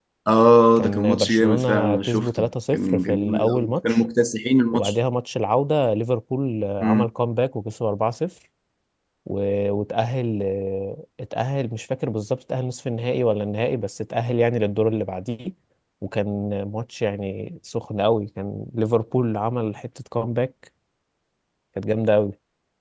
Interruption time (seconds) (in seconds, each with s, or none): 0.8 s